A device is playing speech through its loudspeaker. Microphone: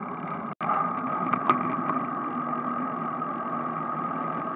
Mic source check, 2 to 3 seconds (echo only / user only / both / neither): neither